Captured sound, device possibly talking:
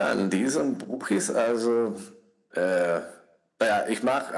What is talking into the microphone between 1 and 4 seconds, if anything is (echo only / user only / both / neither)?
echo only